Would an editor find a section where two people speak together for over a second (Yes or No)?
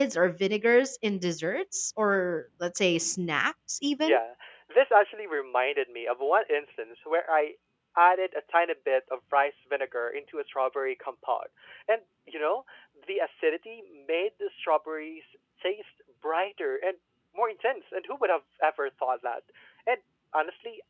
No